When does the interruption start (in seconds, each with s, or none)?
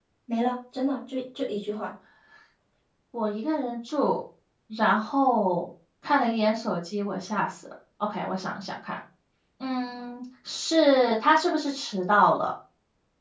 none